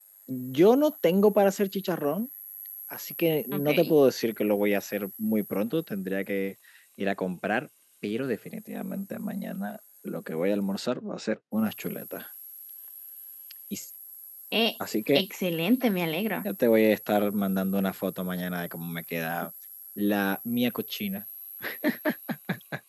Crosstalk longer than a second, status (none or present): none